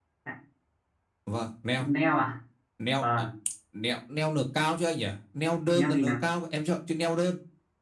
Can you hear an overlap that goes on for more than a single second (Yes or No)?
No